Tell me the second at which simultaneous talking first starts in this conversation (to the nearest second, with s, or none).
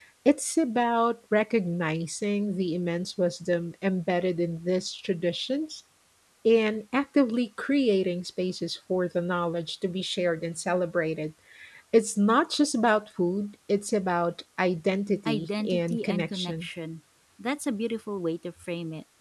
15 s